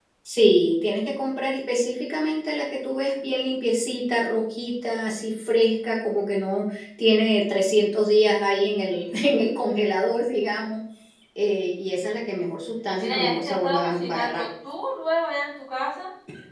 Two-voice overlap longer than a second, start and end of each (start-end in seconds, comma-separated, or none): 13.0-14.4